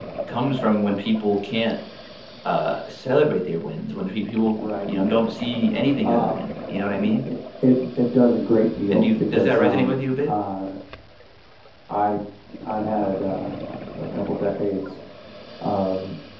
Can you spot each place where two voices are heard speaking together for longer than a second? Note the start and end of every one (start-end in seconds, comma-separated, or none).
8.9-10.3